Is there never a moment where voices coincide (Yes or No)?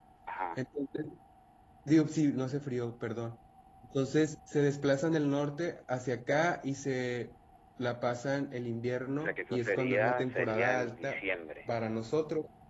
No